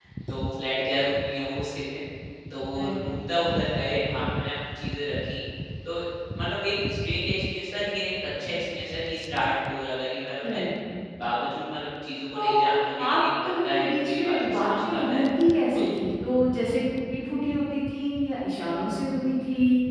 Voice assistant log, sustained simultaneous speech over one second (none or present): present